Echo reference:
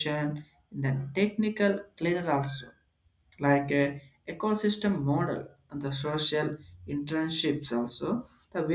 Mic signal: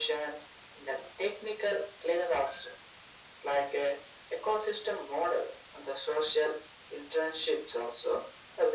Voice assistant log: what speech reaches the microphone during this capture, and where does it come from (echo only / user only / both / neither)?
echo only